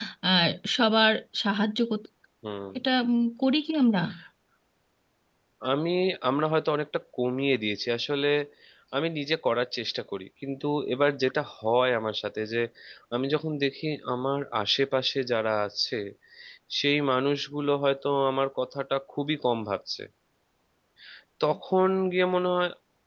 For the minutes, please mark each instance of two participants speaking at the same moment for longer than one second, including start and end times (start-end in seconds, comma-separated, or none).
none